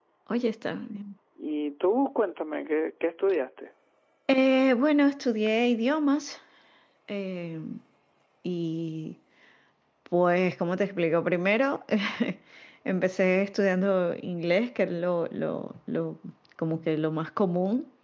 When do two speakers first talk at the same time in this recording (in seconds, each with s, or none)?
none